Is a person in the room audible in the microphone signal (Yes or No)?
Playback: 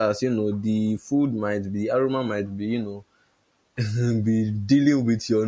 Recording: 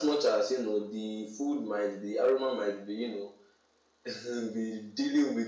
No